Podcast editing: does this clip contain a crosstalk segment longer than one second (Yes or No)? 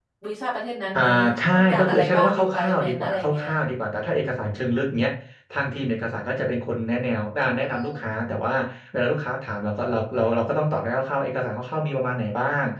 Yes